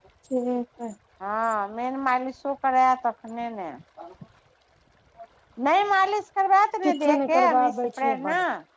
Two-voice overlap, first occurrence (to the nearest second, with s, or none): 7 s